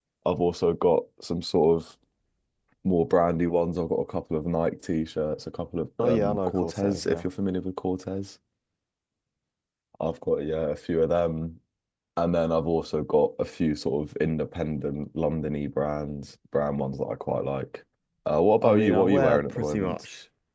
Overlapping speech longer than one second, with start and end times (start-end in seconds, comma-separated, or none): 6.0-7.2, 18.6-20.0